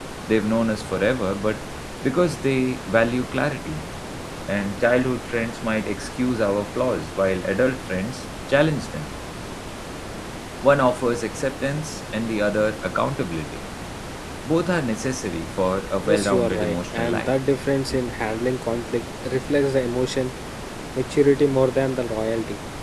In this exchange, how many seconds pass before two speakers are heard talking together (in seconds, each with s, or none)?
16.0 s